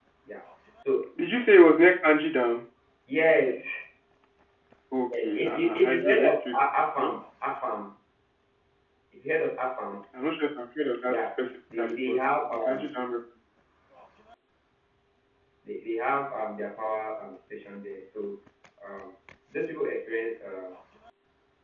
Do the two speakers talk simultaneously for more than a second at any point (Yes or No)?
Yes